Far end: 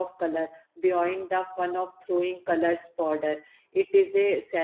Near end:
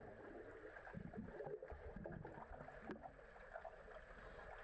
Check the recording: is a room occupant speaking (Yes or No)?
No